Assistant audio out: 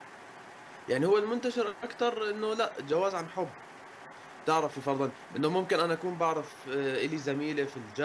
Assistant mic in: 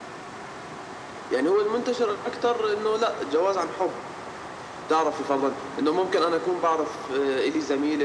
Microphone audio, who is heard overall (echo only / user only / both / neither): echo only